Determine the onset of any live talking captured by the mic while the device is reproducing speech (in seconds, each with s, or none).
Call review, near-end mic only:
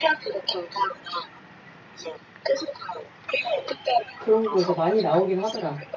4.2 s